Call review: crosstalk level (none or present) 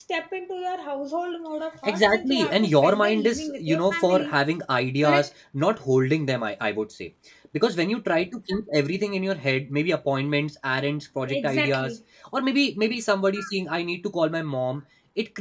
present